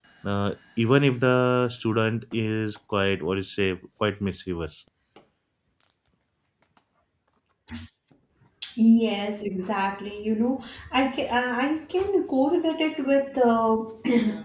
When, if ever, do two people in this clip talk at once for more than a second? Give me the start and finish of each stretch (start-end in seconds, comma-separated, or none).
none